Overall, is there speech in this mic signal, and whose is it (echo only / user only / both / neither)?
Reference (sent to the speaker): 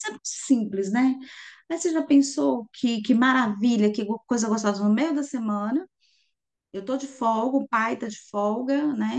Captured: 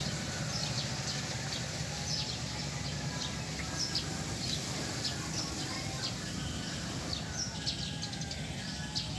neither